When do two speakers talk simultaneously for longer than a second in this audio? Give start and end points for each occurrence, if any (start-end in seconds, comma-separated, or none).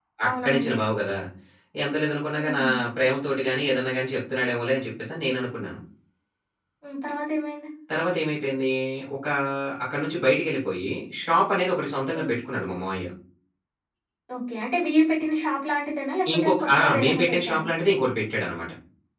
16.3-17.6